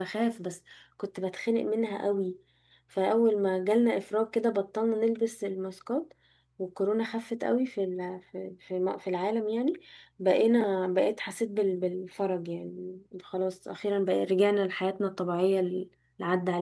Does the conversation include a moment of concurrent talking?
No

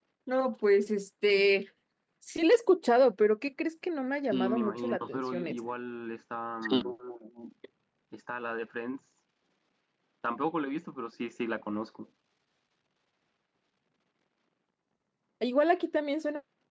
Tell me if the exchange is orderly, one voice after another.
No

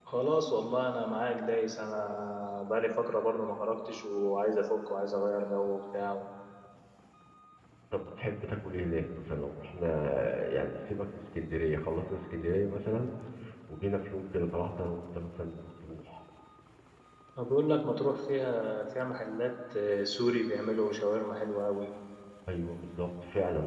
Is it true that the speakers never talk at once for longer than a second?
Yes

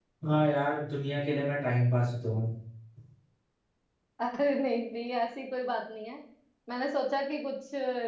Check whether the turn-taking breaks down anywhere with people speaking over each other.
No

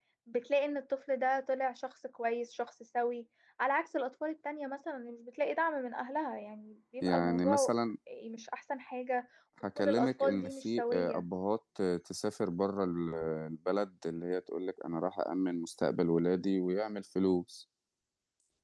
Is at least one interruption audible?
Yes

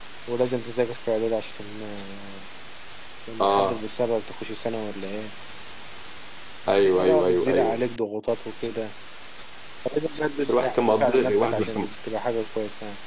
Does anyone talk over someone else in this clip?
Yes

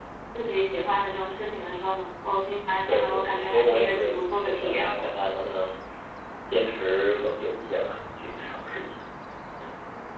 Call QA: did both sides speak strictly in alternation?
No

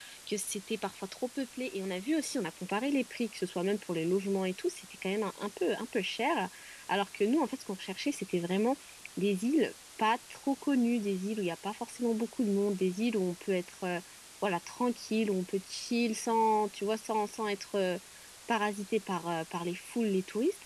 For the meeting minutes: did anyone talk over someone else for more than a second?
No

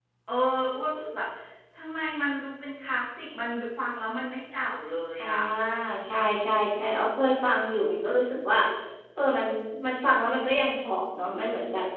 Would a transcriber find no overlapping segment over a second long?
Yes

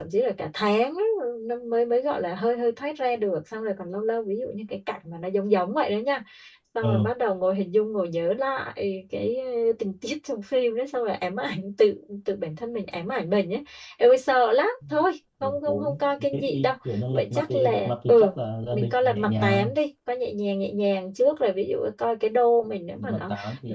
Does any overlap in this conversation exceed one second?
Yes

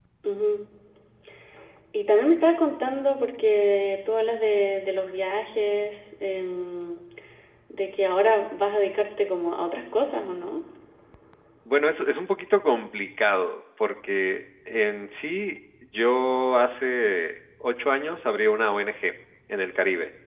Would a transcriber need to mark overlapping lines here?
No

